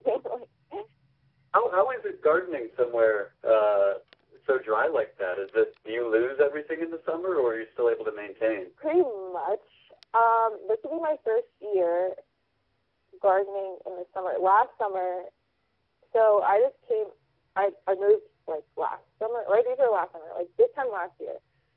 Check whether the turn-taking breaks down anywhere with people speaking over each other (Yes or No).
No